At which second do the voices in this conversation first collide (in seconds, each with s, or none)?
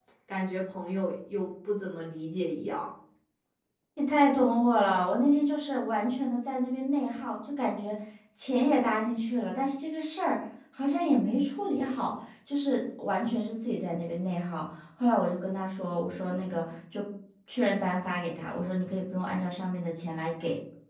none